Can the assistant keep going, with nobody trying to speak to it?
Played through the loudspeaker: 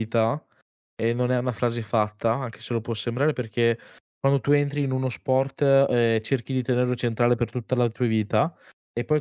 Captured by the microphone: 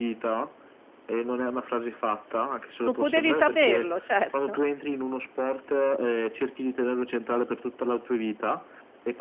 No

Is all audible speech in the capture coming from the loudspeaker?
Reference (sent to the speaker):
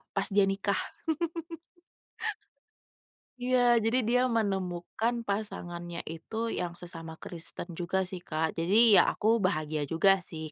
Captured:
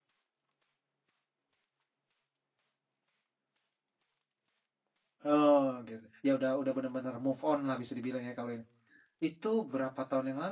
No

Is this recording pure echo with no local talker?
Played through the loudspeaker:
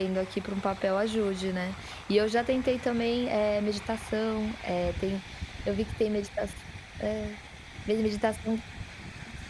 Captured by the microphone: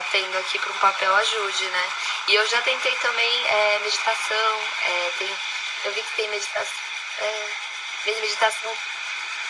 Yes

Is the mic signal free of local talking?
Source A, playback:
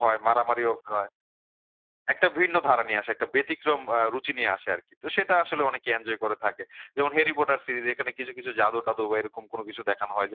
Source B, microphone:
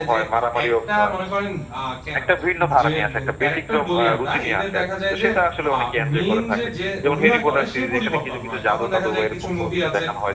No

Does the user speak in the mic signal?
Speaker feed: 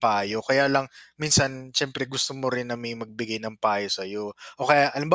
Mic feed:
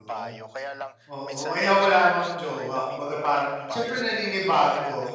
Yes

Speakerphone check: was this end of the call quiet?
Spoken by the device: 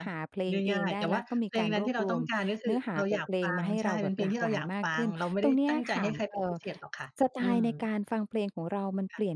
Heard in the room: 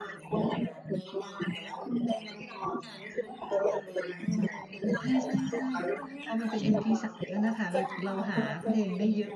No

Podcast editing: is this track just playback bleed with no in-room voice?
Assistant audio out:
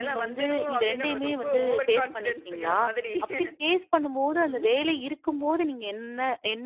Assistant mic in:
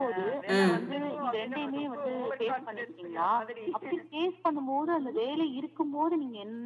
No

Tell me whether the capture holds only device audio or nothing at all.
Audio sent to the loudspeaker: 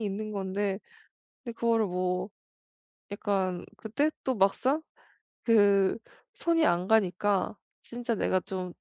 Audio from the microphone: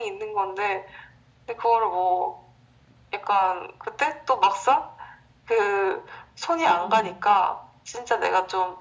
No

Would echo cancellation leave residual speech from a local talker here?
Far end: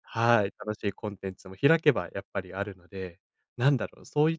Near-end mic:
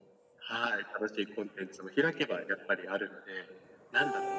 No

